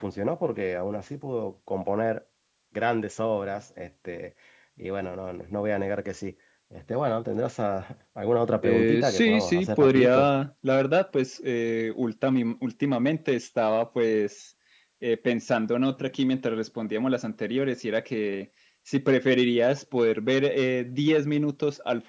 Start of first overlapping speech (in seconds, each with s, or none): 8.6 s